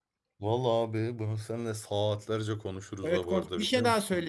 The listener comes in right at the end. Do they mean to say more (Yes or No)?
Yes